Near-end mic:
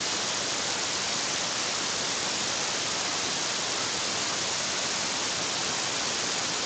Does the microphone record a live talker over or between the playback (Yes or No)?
No